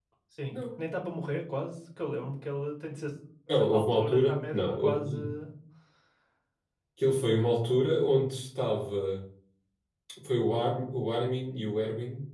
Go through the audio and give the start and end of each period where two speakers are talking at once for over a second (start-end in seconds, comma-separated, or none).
3.6-5.2